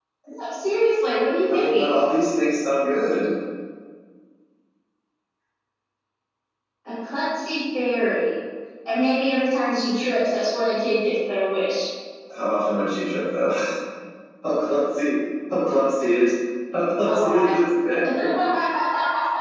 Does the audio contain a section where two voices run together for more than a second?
No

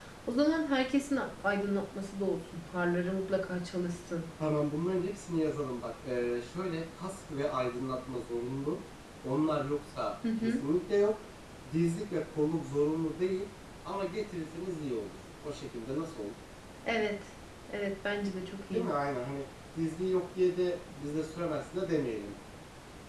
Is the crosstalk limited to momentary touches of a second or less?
Yes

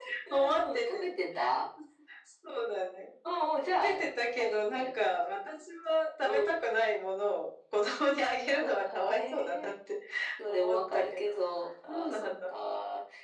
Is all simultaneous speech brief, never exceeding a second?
No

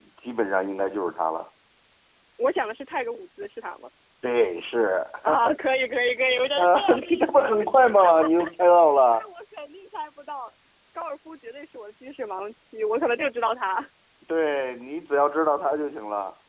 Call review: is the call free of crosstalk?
No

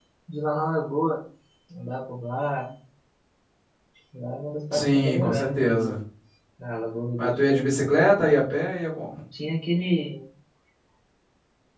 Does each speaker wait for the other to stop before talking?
No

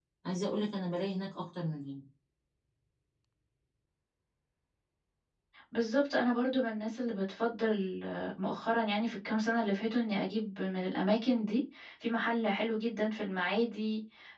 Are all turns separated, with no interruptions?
Yes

